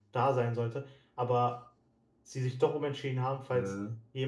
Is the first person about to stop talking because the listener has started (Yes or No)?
No